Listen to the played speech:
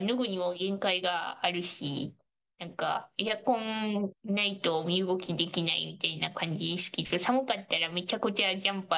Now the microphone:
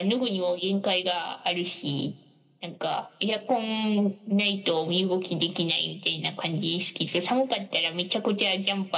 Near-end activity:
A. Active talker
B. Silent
B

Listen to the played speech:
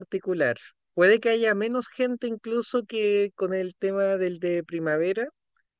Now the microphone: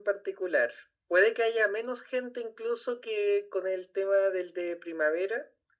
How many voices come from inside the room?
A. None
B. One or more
A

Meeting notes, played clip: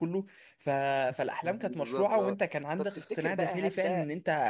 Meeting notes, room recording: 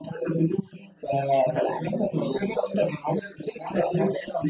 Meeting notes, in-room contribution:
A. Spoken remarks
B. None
B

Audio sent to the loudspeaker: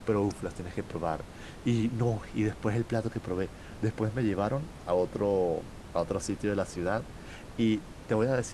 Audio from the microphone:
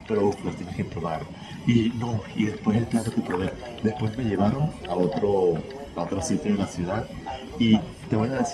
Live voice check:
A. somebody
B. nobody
A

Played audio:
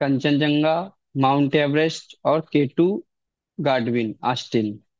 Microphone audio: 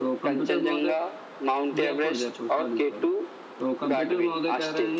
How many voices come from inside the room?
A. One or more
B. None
A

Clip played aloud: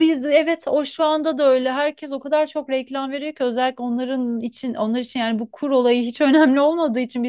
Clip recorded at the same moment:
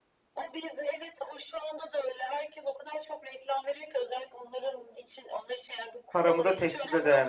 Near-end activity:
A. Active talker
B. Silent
A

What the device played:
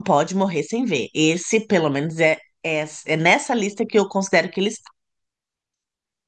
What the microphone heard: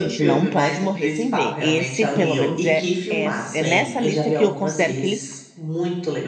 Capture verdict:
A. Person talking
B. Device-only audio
A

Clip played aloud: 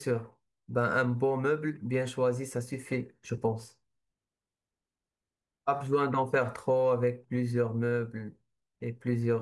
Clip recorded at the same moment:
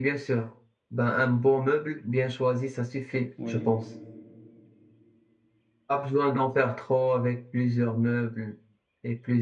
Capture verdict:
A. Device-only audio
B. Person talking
B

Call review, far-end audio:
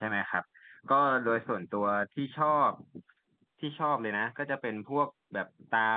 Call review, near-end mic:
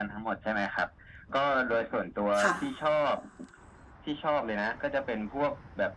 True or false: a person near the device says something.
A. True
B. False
A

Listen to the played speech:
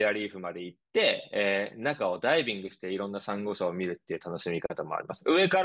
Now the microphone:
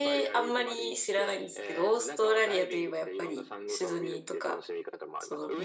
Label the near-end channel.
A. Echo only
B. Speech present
B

